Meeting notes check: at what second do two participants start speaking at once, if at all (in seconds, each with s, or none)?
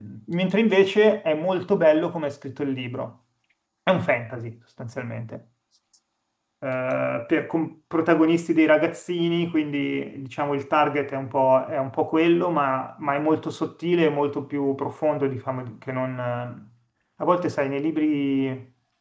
none